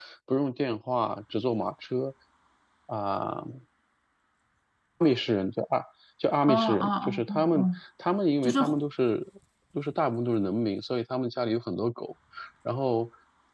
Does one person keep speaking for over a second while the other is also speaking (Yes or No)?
Yes